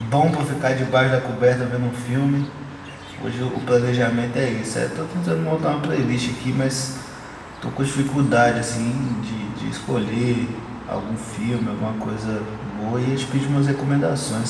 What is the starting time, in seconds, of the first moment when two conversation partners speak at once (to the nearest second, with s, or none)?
none